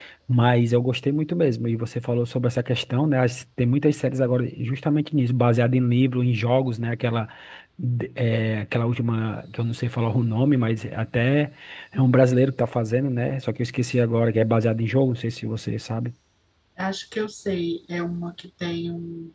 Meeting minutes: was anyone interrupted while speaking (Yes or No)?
No